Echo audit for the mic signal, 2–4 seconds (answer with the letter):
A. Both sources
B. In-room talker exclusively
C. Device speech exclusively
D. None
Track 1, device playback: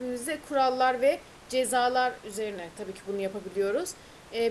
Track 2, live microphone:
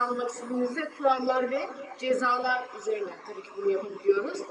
C